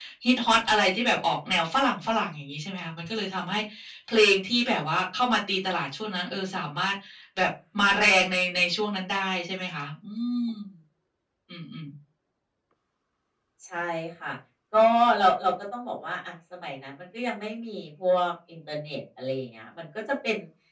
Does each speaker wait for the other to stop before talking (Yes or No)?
Yes